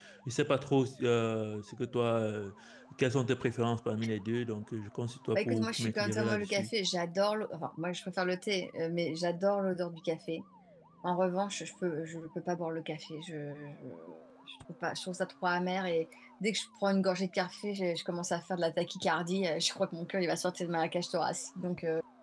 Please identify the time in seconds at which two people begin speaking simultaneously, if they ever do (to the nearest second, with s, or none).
5 s